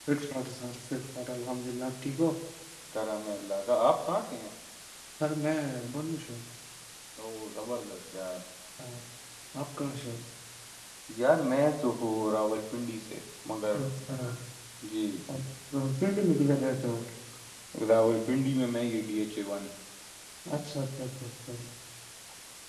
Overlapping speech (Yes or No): No